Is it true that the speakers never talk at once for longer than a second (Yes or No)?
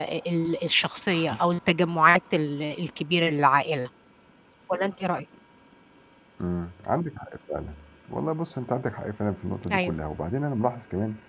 Yes